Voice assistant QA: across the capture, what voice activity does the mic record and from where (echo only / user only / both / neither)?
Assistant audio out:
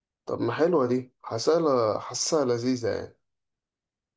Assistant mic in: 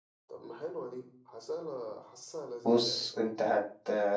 both